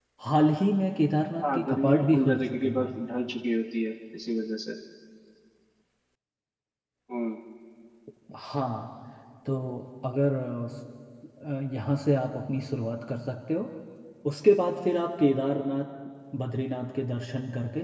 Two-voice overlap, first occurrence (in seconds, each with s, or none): 1.4 s